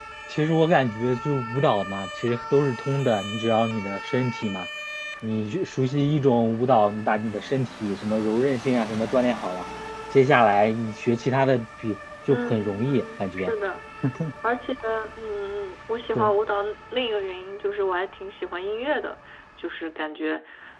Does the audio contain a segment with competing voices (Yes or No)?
Yes